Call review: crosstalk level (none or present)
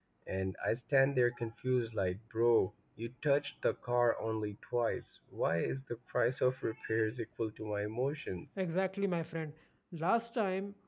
none